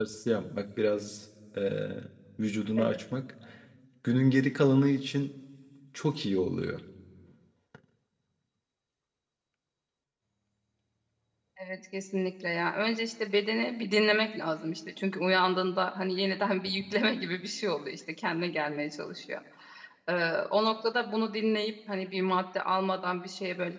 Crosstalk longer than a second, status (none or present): none